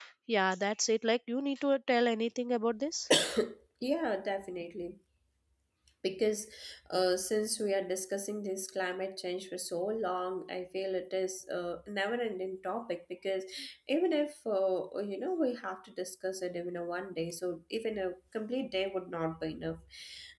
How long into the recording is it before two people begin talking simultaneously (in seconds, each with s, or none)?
none